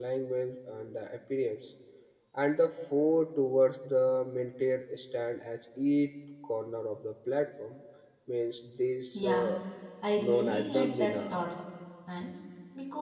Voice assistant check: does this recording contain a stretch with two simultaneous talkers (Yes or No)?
Yes